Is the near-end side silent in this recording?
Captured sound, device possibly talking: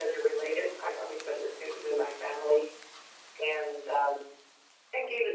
Yes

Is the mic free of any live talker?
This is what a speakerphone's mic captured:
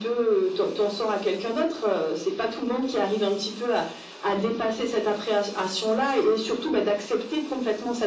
Yes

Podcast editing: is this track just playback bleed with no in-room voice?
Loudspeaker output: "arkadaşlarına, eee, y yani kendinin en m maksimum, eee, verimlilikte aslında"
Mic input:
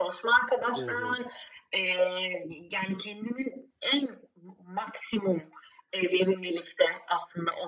No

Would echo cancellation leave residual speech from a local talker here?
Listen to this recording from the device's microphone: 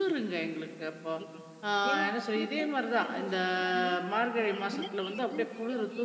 Yes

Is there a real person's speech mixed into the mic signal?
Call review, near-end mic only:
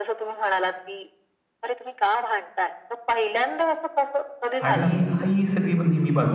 Yes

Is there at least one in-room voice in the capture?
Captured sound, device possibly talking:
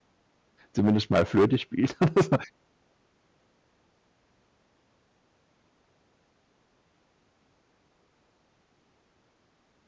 Yes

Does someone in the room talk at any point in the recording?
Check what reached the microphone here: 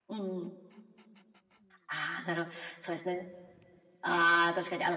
No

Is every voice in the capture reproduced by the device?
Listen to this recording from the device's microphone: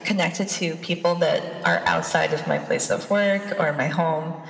Yes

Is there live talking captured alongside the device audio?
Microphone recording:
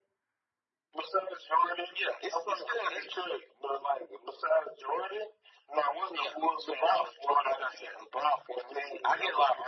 No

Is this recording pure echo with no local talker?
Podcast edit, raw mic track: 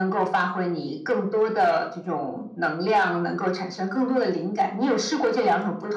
Yes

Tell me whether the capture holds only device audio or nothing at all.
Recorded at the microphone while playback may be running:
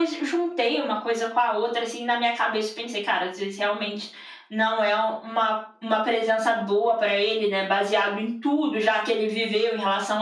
Yes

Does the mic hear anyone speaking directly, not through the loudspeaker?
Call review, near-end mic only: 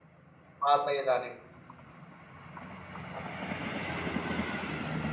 Yes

